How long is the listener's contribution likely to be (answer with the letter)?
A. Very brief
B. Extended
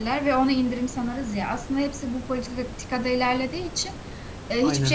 A